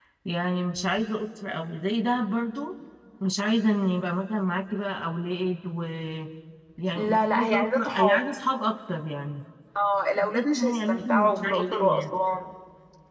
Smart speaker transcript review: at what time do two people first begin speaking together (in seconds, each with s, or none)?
7.0 s